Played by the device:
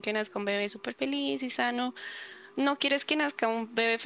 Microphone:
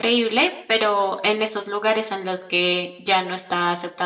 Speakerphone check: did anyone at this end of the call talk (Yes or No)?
Yes